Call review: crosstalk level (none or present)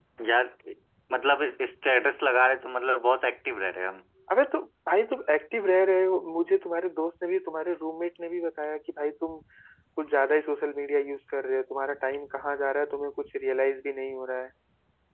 none